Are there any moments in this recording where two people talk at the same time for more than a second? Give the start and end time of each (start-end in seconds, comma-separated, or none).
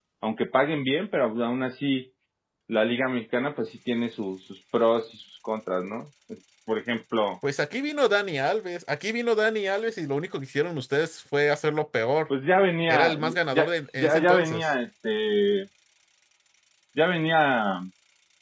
12.9-14.7